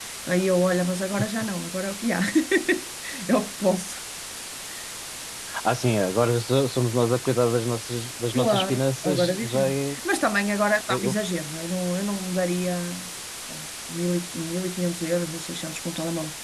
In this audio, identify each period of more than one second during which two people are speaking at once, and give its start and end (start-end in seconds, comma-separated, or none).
8.4-9.9